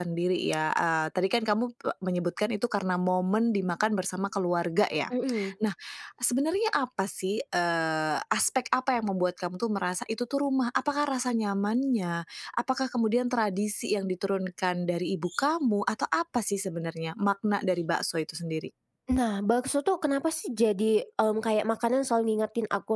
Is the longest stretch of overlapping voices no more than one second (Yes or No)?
Yes